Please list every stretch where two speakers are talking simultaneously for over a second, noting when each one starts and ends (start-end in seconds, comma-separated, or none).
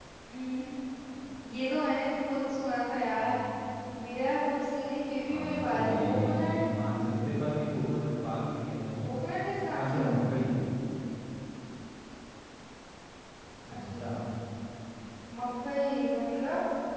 5.2-6.6